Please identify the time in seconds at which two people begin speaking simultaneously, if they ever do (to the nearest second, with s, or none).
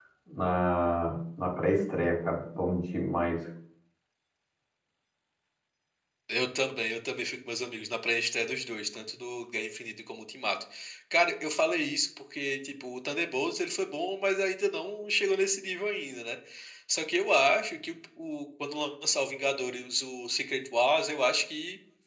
none